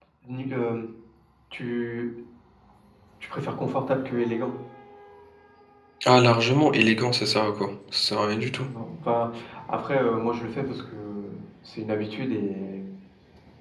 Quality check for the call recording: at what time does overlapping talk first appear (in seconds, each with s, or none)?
none